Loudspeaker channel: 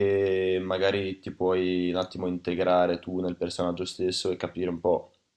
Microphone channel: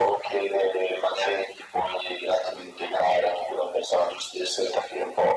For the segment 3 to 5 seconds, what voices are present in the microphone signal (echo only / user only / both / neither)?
echo only